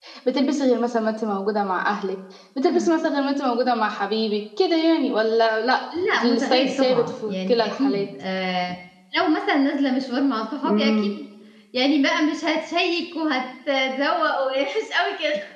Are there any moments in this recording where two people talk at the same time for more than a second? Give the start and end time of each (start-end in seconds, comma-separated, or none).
6.1-8.1